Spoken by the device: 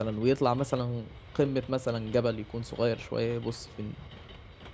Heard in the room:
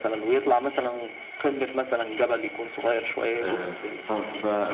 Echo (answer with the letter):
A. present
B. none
A